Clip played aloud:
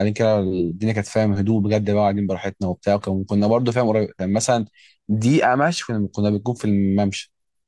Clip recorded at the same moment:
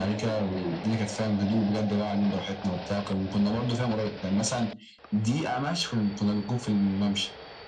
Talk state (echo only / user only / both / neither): echo only